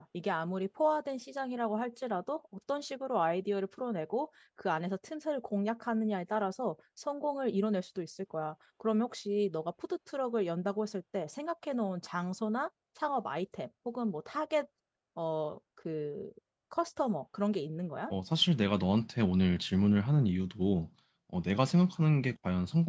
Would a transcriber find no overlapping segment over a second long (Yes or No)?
Yes